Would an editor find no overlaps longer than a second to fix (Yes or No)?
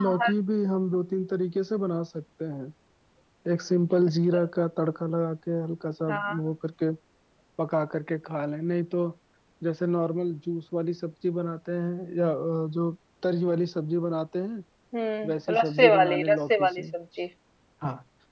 No